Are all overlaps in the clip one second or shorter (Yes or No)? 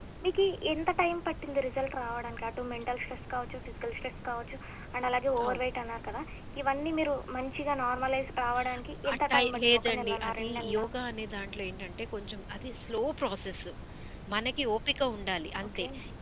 No